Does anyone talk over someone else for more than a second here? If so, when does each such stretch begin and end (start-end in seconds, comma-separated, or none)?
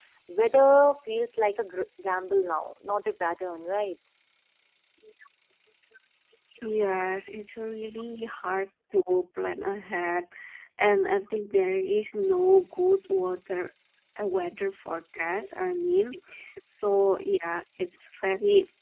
none